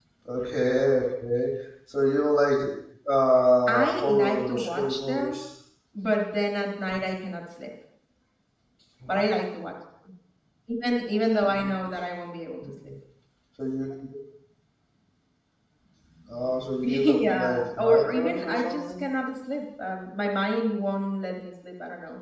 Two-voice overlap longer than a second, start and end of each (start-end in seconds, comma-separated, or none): 3.7-5.4, 16.8-19.0